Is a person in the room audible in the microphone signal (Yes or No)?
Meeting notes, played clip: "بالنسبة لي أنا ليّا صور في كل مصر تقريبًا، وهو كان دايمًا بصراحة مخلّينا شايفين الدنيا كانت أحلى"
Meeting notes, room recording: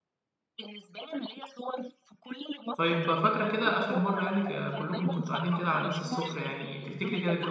Yes